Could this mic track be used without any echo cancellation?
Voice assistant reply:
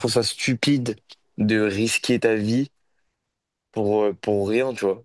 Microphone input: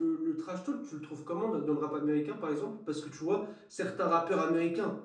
Yes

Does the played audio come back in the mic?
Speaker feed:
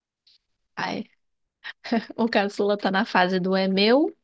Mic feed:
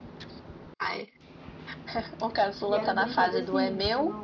Yes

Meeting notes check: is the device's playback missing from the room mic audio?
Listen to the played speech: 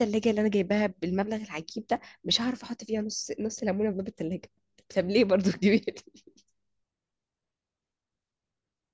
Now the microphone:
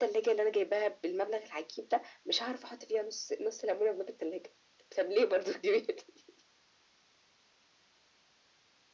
No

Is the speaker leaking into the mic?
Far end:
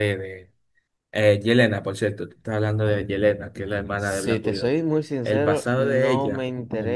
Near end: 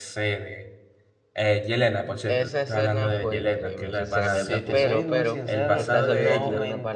Yes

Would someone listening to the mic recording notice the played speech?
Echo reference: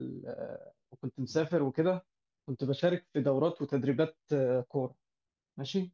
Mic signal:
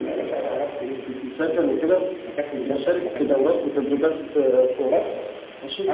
Yes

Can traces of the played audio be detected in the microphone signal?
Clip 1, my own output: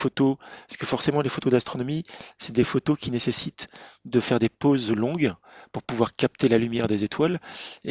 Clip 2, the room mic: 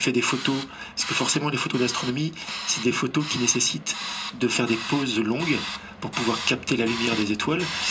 Yes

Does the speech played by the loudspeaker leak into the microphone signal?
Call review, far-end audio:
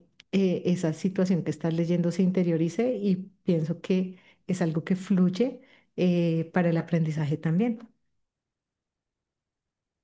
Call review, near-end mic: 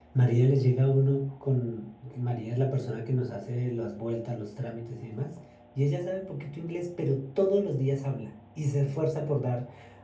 No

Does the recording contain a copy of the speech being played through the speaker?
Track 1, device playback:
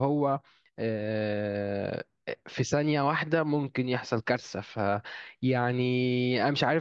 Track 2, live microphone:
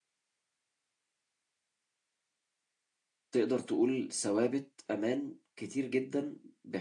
No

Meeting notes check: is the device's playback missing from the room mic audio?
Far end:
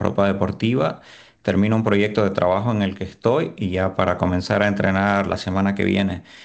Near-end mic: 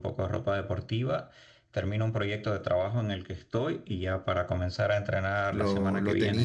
No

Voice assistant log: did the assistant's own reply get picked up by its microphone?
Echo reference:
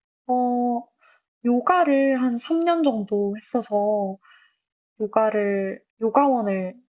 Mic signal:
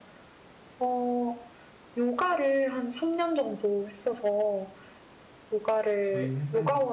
Yes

